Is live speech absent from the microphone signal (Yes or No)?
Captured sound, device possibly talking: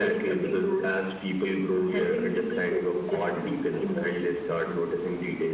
Yes